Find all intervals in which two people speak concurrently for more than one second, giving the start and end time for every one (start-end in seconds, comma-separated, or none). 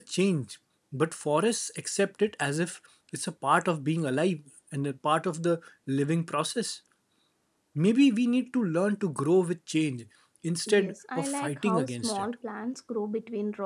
10.7-12.3